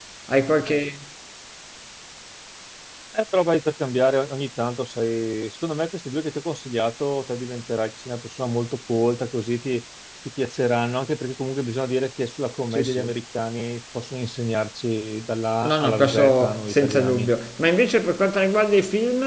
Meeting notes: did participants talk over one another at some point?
Yes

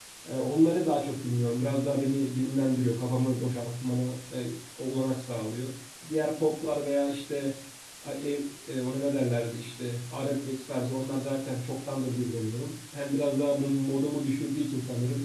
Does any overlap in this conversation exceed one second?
No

